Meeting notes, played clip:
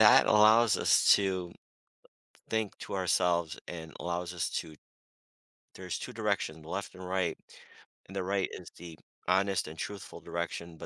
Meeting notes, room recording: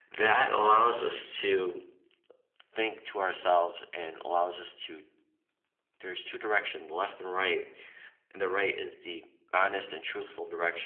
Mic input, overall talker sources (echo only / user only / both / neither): echo only